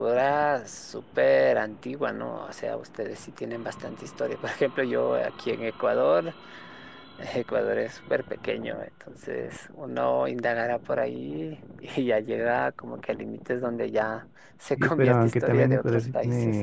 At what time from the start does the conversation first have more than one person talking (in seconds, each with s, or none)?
14.8 s